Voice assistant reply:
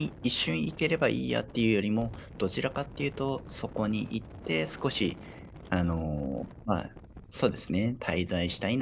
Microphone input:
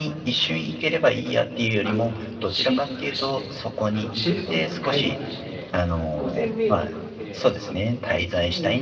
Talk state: both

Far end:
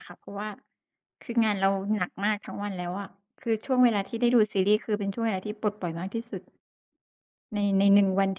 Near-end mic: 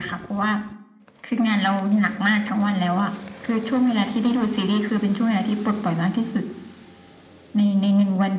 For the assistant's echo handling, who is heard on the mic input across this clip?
echo only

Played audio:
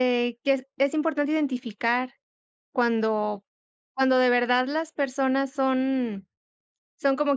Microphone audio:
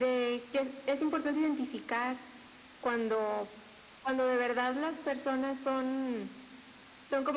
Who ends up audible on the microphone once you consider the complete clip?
echo only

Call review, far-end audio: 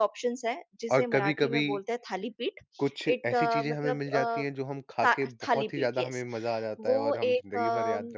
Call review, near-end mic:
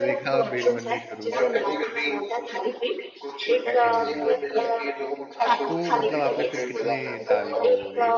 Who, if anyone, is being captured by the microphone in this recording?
both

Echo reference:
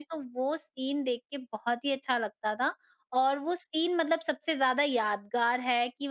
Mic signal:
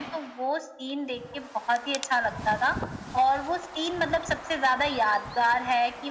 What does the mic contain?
echo only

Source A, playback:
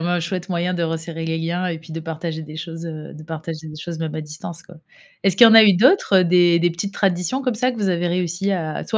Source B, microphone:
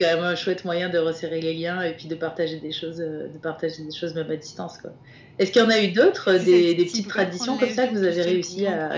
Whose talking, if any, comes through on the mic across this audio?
both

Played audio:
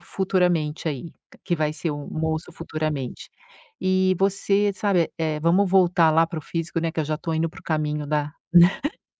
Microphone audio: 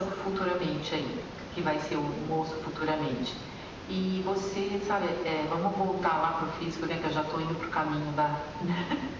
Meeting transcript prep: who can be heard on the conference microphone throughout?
echo only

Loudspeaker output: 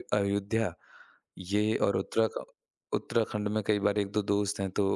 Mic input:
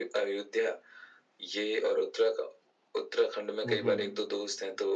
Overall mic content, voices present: both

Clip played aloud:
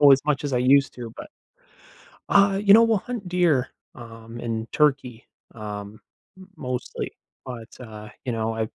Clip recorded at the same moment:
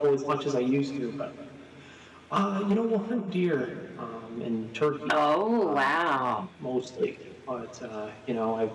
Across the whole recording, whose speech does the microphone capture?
both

